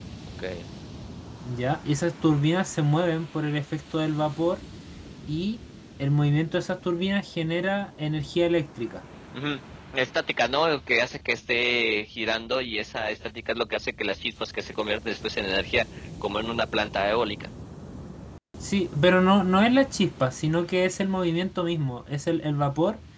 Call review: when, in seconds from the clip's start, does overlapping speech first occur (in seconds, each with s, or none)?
none